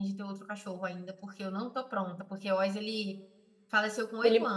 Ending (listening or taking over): listening